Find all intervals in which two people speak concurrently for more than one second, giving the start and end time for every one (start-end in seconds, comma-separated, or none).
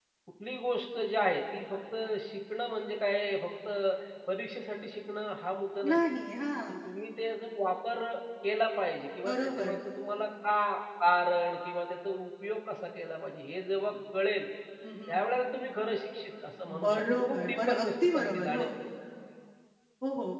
16.8-18.6